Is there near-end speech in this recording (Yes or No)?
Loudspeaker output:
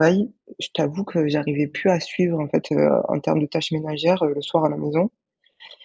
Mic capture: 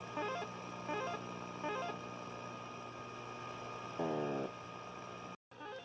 No